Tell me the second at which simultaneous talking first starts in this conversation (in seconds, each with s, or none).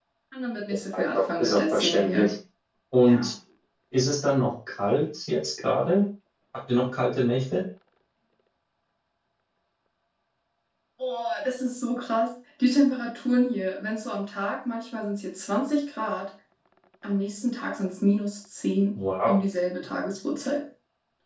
0.9 s